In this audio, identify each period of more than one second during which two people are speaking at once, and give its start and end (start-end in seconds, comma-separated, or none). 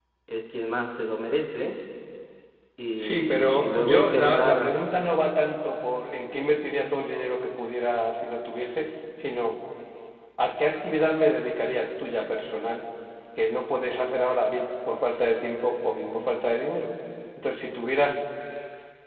3.0-4.7